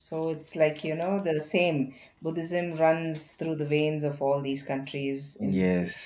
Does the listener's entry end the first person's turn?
Yes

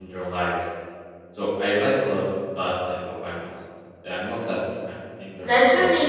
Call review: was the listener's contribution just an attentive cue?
No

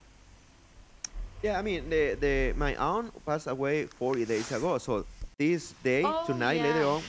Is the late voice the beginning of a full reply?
No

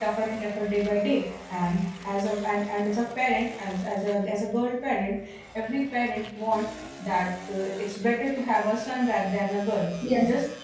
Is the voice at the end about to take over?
No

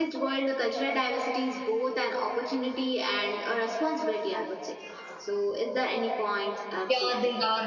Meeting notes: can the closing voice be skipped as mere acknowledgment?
No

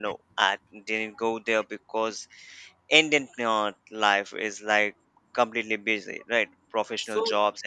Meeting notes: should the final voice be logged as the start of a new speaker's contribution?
No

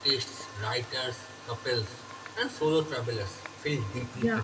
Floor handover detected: Yes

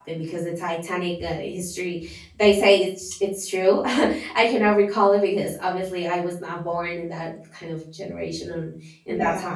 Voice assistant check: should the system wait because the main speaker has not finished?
Yes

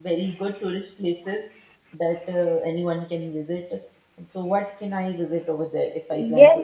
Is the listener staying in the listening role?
No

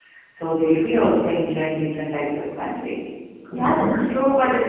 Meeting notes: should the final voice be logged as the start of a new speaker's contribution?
Yes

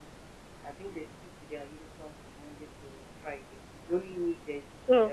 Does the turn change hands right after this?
Yes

